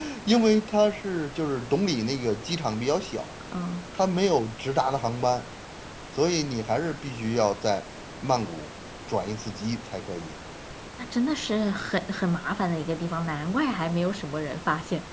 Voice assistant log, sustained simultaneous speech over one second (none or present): none